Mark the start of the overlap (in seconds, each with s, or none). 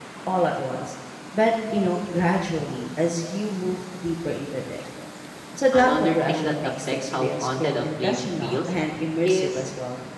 5.7 s